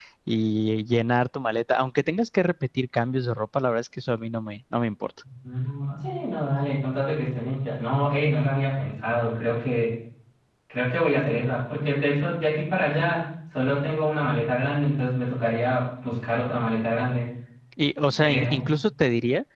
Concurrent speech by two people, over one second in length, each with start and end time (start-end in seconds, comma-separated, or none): none